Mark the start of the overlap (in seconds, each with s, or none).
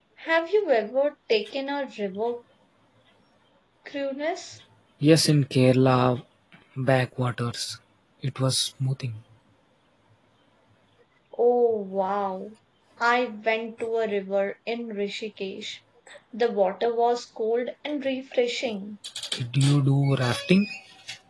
none